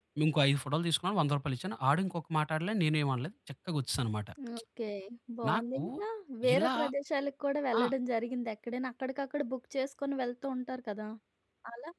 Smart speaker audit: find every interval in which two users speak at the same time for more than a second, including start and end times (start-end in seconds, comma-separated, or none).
none